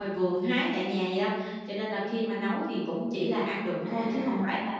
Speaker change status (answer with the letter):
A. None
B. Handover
B